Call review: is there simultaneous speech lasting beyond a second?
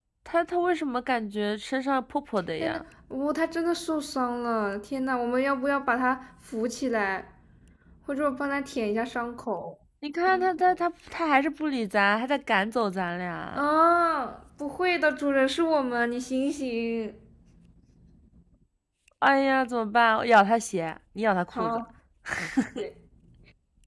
No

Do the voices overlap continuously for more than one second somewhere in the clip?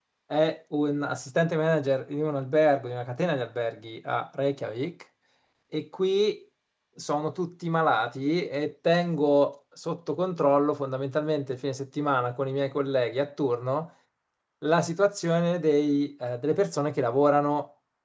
No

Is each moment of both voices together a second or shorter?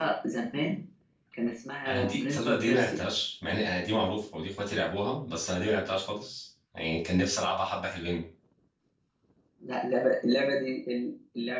No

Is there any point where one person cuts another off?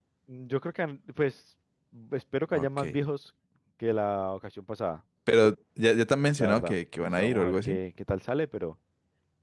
Yes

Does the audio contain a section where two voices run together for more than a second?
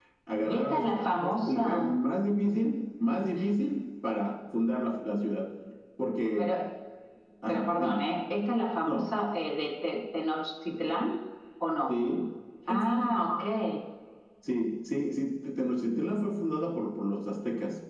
Yes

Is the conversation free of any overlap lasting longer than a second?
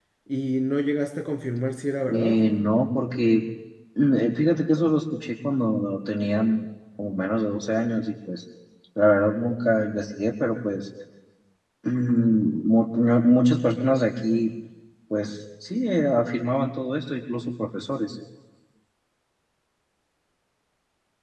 Yes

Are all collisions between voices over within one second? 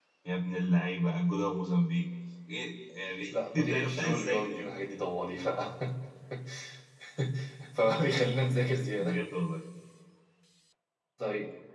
No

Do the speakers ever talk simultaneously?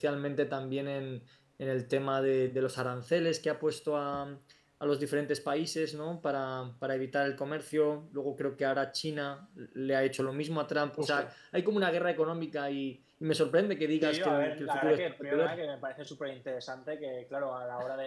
Yes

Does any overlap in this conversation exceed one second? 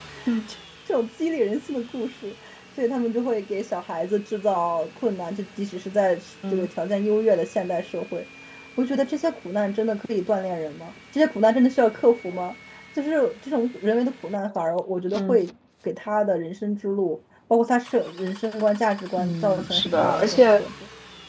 Yes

